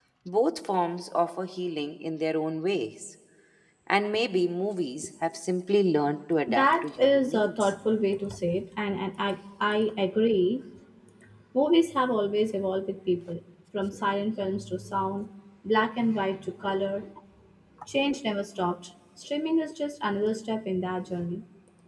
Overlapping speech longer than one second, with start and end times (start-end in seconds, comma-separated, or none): 6.5-7.7